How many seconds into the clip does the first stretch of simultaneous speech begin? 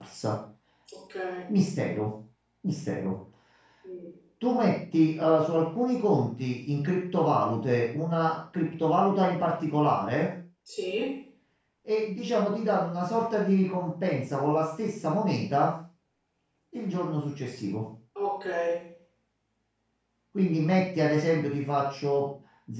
none

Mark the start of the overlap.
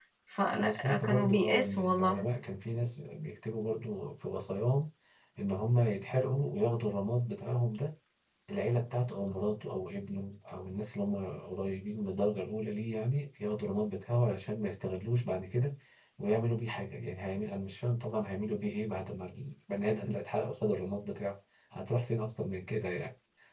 0.6 s

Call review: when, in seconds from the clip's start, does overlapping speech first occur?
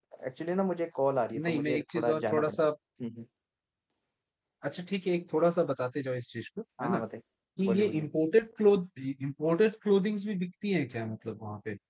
1.4 s

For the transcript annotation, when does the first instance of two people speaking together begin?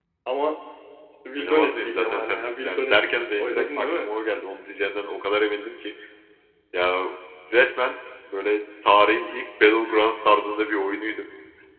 1.4 s

